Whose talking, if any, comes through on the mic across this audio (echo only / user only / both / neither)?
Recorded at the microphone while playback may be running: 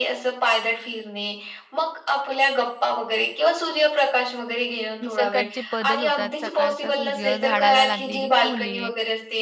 both